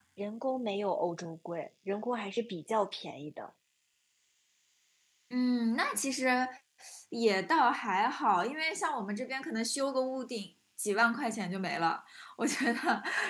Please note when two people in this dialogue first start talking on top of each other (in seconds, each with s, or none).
none